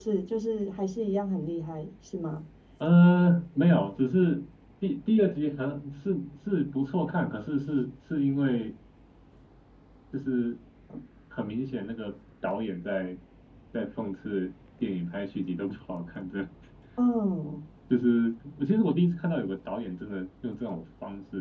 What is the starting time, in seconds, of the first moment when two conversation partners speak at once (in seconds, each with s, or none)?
none